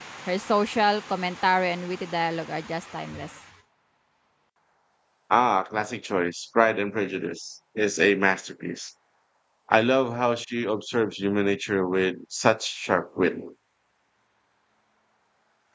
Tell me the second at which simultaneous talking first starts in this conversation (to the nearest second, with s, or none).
none